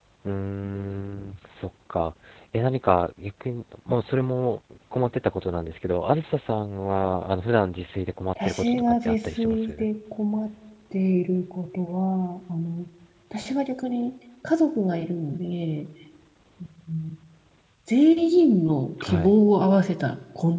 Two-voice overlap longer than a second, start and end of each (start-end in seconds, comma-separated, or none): 8.4-9.7